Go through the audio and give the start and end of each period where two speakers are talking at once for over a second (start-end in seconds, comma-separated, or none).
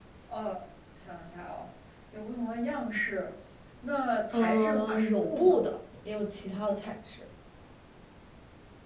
4.3-5.6